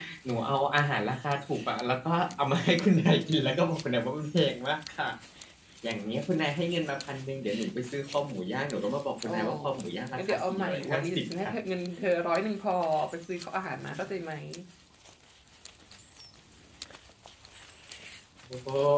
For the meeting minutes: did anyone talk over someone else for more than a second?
Yes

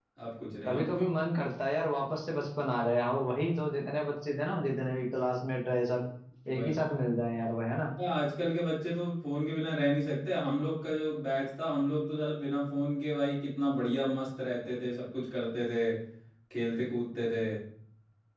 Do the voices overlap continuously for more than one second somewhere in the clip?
No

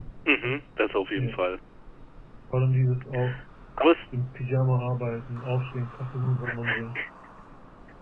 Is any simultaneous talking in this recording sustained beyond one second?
No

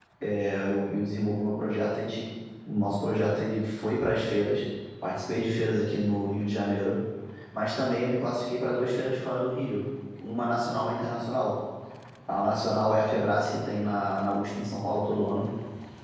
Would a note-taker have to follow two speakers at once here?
No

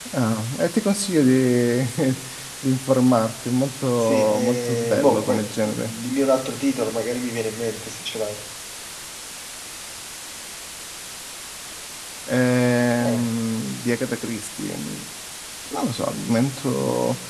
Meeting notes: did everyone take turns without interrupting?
No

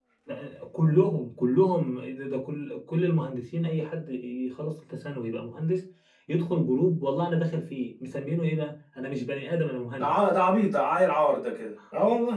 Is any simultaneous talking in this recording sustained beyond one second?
No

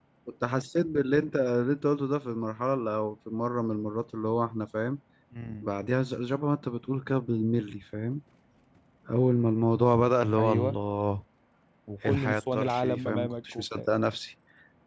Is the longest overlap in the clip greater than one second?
Yes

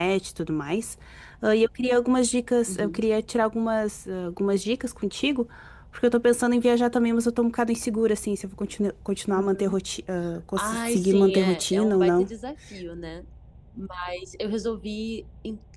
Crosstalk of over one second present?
Yes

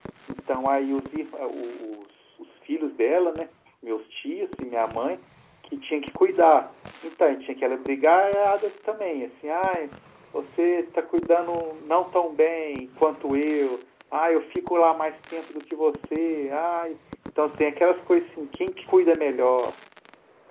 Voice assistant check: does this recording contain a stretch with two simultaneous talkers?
No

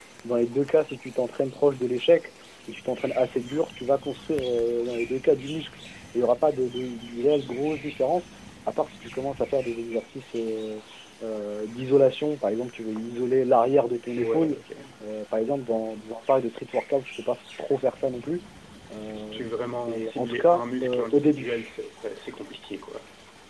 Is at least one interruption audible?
Yes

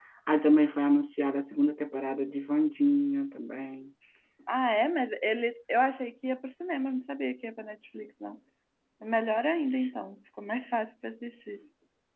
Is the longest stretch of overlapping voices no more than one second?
Yes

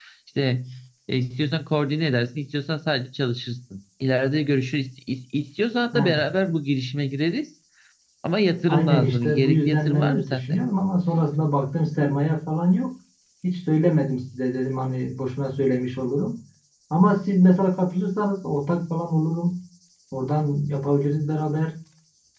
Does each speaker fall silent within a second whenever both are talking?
No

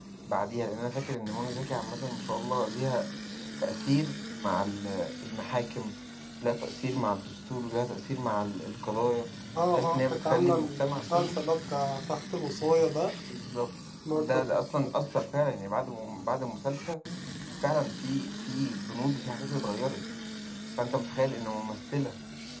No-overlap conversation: No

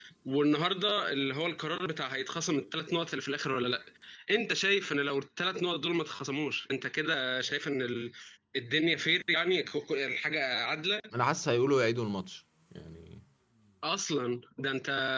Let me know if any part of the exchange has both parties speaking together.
No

